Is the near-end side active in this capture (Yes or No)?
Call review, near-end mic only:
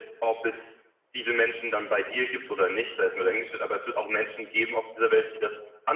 No